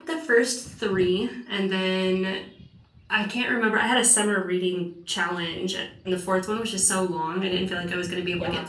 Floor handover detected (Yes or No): Yes